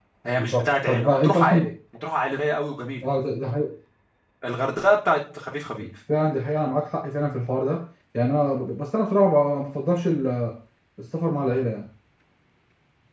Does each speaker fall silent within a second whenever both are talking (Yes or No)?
No